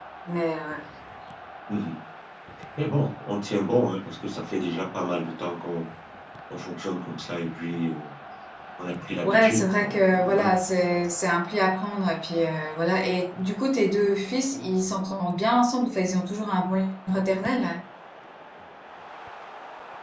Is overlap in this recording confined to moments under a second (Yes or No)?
No